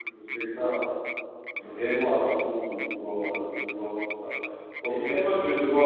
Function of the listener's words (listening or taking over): listening